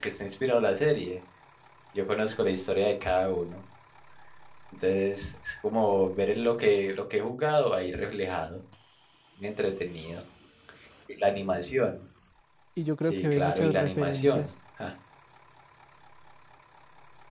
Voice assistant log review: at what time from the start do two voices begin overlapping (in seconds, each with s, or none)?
13.0 s